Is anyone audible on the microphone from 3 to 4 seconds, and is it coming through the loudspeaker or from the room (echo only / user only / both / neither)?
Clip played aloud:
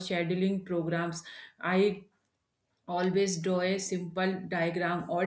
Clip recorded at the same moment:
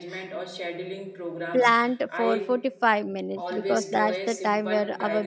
both